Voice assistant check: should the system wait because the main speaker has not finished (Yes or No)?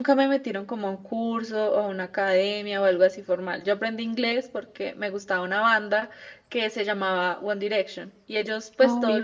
Yes